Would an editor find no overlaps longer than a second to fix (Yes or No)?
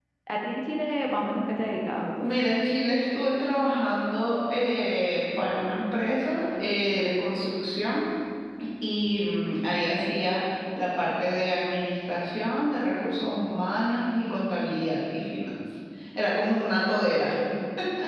Yes